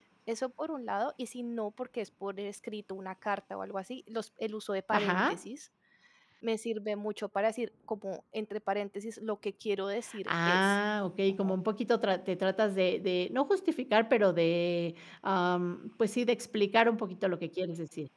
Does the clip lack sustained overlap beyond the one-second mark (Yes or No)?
Yes